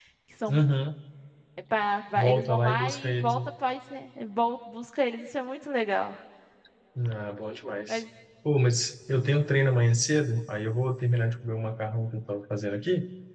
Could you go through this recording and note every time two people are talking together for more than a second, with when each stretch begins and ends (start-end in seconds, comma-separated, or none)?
2.2-3.4